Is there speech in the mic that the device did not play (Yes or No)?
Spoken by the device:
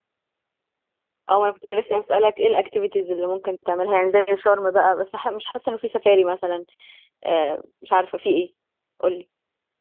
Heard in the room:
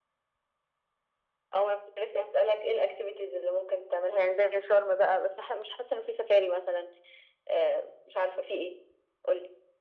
No